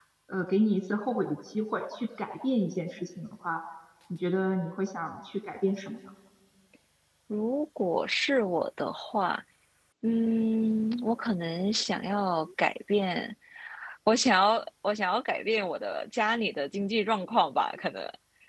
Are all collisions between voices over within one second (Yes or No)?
Yes